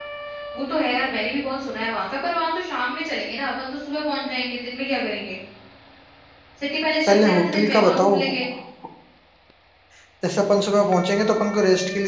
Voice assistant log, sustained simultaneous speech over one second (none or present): present